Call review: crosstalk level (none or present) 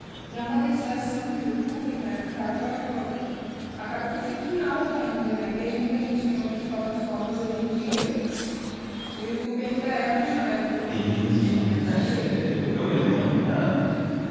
present